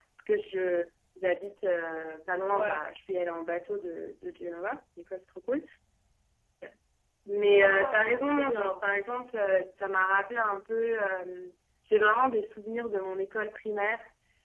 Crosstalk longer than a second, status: present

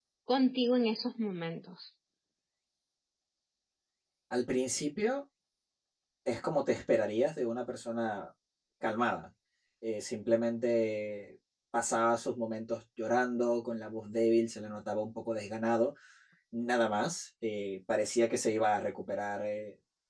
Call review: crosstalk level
none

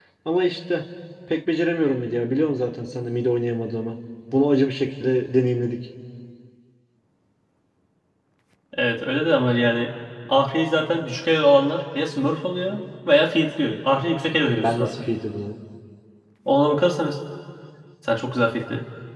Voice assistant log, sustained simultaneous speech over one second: none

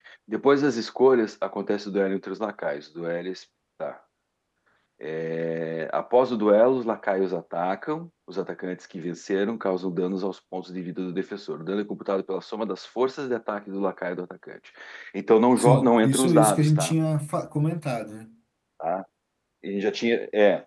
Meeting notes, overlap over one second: present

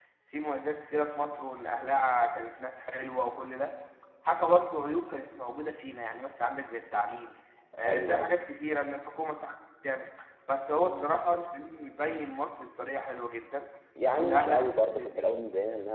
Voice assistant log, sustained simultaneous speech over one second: present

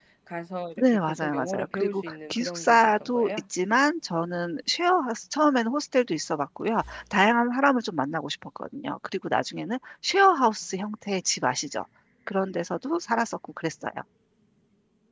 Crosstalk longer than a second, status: present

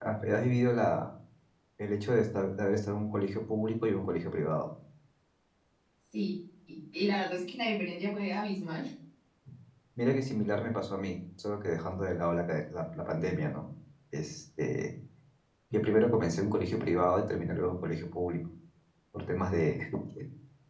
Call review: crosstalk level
none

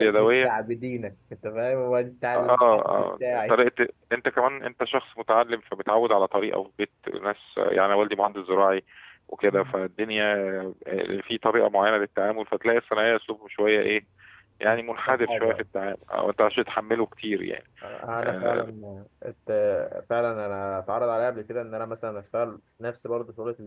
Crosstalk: present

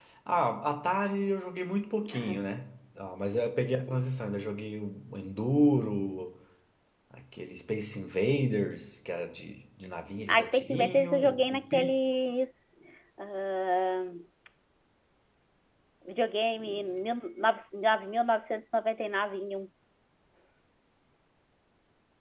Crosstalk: present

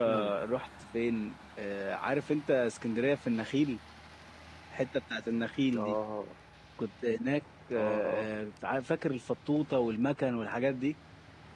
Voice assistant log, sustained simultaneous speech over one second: none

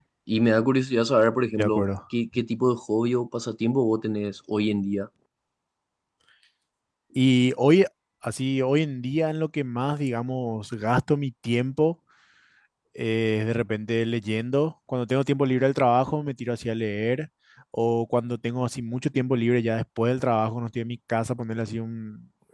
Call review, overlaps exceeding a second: none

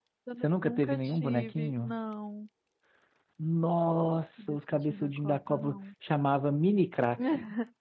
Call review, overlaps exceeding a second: present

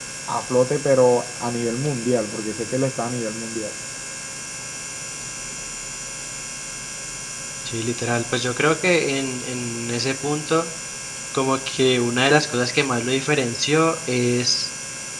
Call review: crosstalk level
none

